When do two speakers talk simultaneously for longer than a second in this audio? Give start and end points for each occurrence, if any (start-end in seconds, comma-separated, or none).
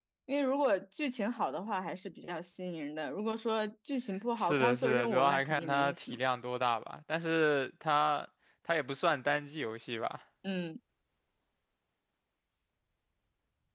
4.4-6.2